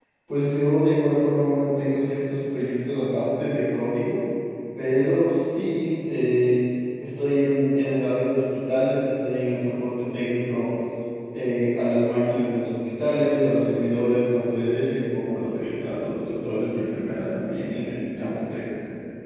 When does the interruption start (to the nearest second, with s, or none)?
none